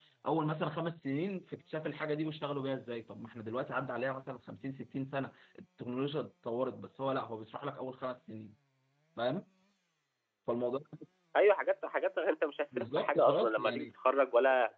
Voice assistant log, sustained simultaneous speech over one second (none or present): present